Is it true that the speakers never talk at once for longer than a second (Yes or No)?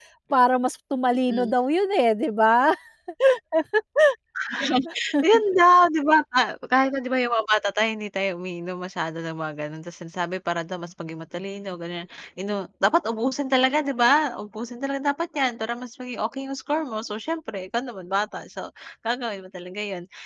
Yes